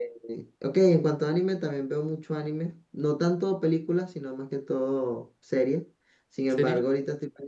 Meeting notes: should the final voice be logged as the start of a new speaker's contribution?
No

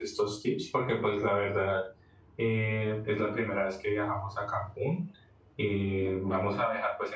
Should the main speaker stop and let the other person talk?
No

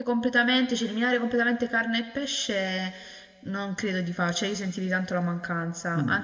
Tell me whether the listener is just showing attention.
Yes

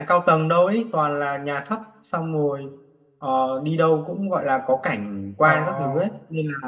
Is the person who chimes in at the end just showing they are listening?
Yes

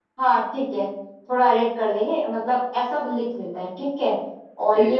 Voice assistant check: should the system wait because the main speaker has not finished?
Yes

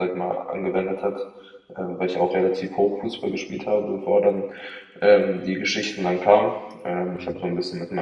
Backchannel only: Yes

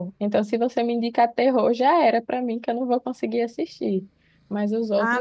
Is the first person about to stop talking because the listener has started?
Yes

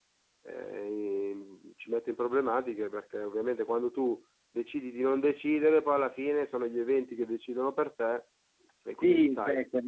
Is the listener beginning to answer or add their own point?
Yes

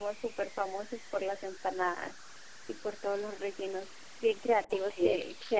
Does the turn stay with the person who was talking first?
Yes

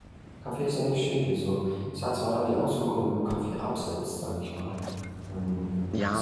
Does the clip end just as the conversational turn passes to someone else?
Yes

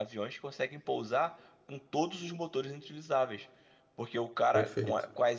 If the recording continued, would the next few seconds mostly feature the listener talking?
No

